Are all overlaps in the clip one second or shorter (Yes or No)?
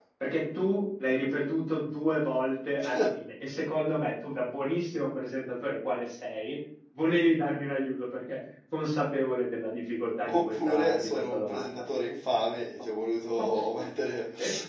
No